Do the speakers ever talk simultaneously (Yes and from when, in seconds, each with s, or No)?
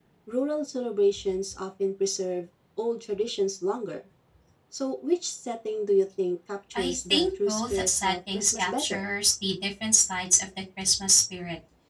Yes, from 6.8 s